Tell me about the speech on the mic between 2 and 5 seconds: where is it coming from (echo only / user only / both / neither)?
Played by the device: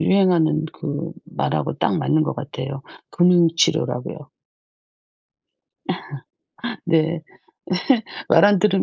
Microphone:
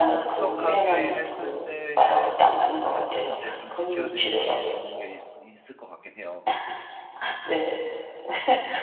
both